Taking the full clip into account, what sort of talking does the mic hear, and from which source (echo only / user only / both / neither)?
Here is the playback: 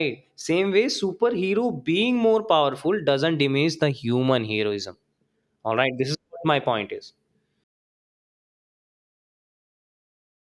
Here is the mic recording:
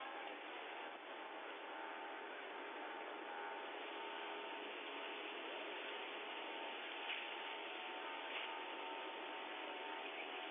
neither